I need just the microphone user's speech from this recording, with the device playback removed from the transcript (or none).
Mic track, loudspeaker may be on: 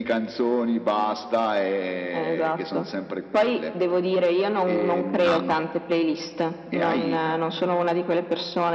Ah, okay.